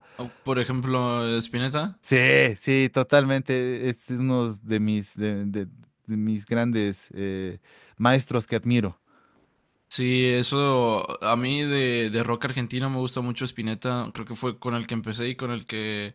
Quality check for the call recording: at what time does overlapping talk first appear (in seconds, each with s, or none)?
none